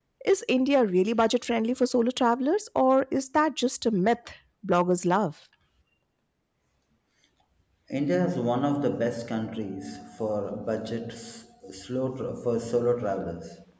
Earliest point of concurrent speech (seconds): none

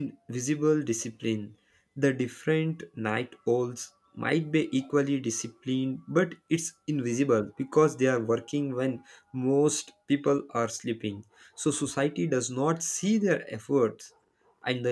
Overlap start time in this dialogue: none

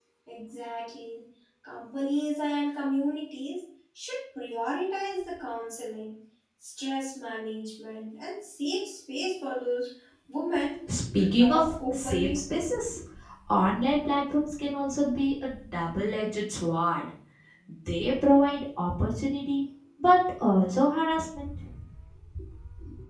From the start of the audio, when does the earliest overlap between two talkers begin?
11.2 s

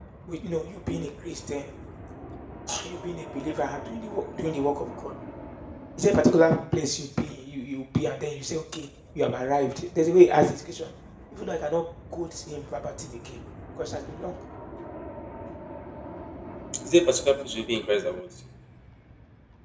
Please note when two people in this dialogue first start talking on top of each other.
none

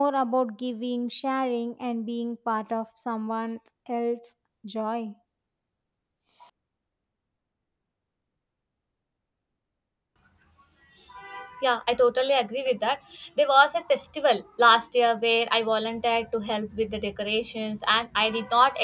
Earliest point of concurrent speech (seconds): none

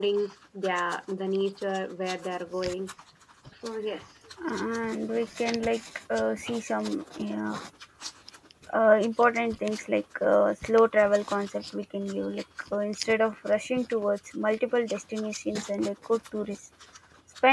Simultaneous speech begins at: none

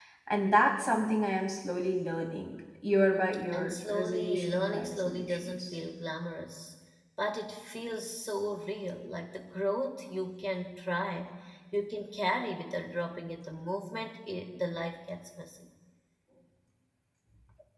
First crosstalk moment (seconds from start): 3.5 s

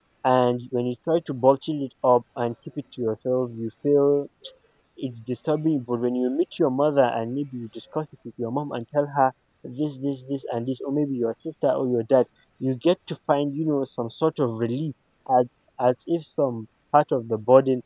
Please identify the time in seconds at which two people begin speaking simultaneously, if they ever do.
none

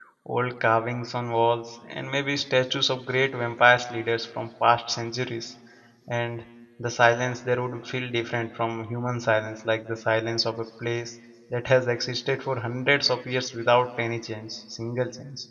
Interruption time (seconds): none

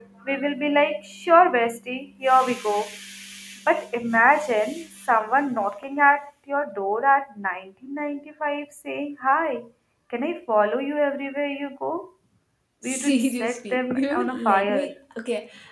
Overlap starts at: 12.8 s

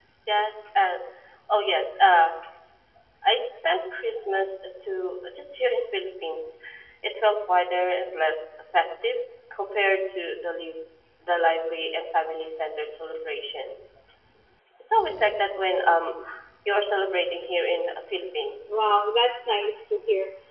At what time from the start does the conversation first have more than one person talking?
none

